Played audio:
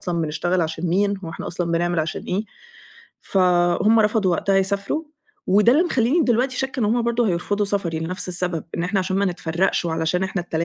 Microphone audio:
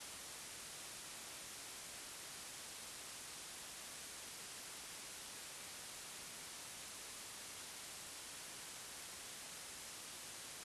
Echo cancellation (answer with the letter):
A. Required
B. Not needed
B